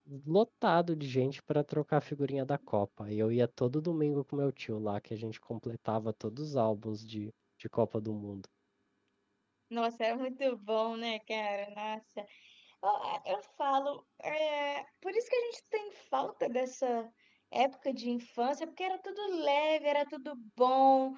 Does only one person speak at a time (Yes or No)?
Yes